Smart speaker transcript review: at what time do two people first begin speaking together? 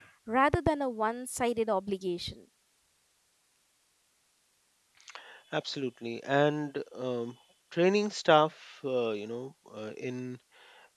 none

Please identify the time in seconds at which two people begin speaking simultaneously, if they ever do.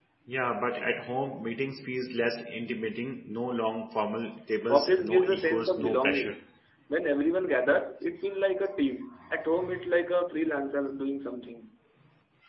4.7 s

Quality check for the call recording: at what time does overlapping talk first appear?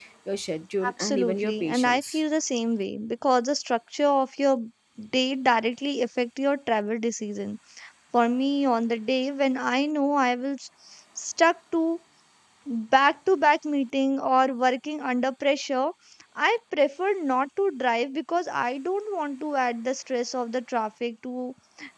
0.9 s

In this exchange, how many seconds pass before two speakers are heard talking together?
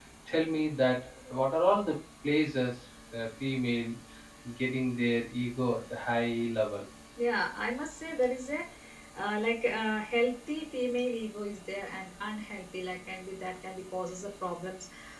none

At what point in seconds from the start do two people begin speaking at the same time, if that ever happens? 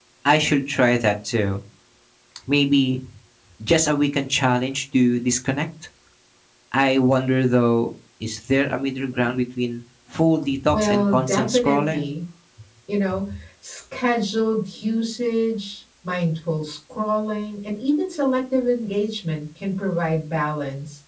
10.5 s

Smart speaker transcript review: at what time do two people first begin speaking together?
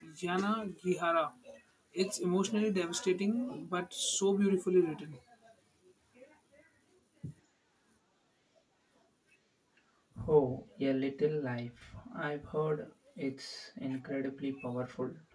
none

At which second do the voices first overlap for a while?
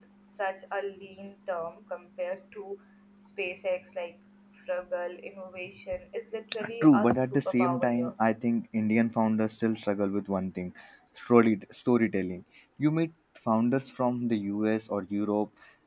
6.8 s

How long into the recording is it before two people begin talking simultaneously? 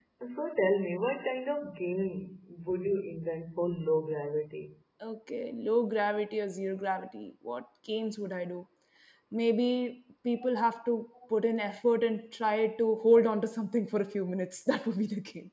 none

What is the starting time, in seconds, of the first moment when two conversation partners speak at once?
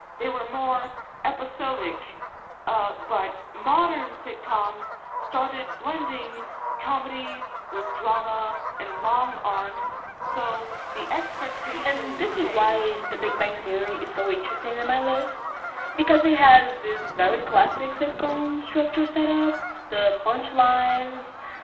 11.8 s

